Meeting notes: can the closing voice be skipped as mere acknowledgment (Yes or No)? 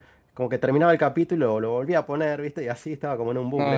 No